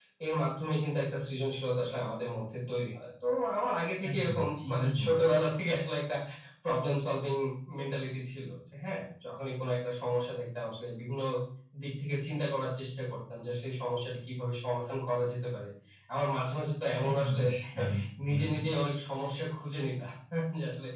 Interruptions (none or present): present